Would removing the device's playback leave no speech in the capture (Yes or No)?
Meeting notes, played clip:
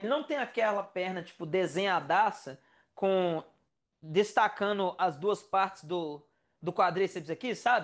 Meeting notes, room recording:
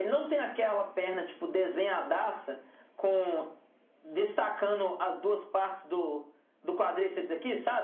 Yes